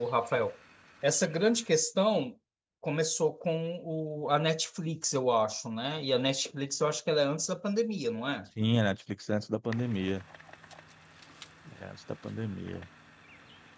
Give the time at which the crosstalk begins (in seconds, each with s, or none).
none